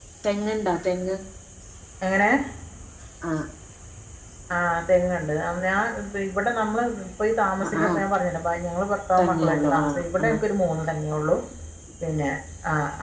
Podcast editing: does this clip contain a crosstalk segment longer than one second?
Yes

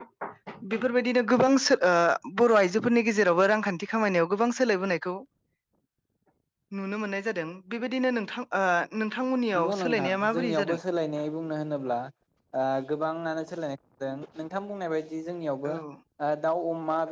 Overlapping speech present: Yes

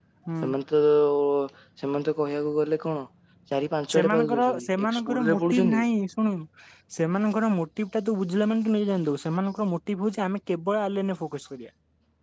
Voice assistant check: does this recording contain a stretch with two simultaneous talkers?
Yes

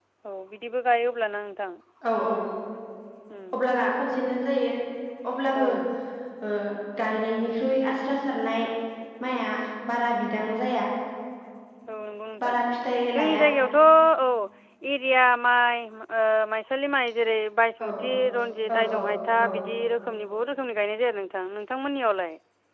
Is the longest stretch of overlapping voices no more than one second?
Yes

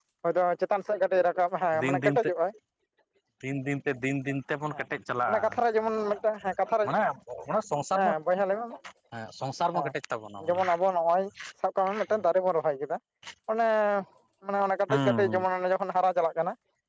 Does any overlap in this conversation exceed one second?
No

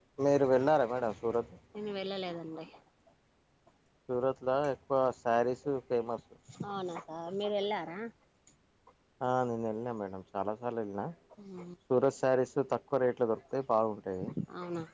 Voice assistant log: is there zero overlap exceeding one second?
Yes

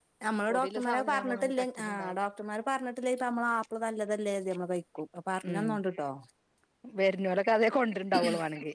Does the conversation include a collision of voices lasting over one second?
Yes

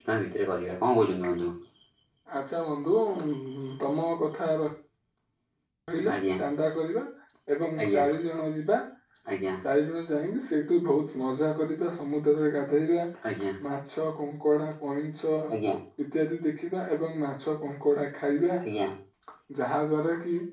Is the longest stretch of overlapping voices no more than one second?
Yes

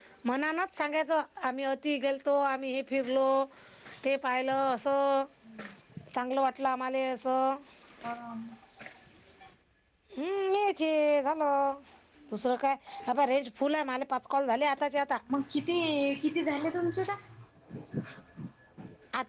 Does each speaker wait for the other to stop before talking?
Yes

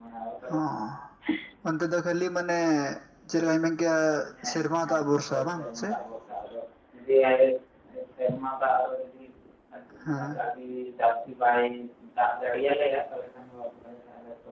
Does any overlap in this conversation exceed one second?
Yes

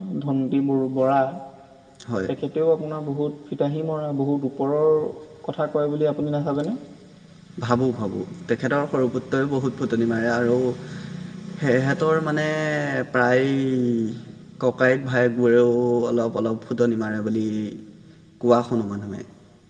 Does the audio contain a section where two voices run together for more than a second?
No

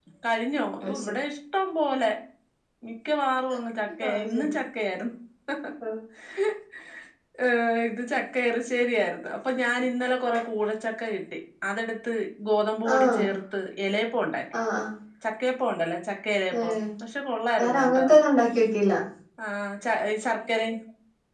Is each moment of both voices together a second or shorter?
Yes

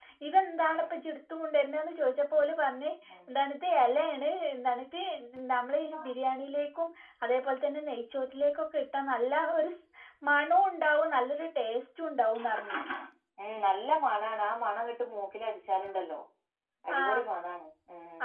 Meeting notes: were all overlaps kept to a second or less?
Yes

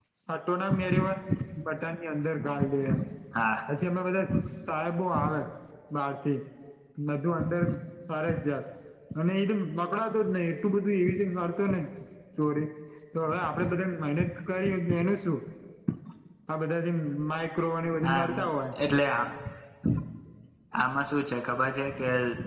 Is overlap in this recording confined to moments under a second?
Yes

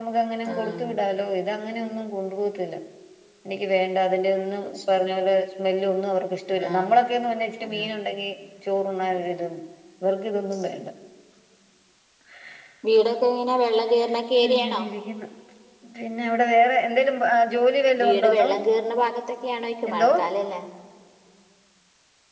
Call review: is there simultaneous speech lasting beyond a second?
No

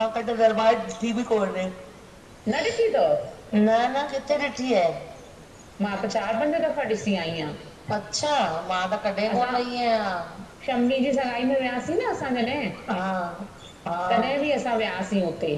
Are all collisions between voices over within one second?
Yes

